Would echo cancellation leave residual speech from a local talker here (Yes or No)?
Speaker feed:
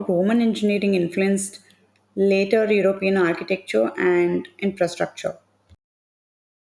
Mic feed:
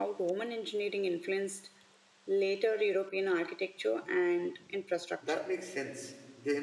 Yes